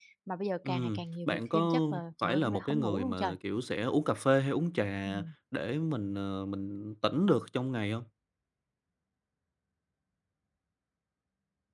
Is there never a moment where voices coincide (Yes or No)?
No